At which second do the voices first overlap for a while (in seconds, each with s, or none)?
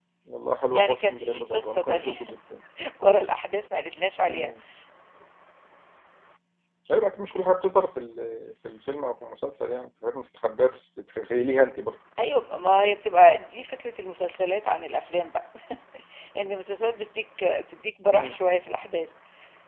0.7 s